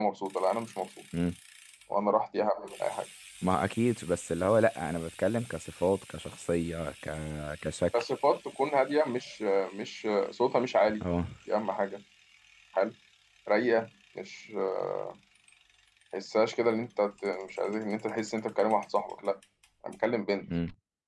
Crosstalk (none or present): none